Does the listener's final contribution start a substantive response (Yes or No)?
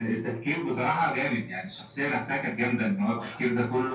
No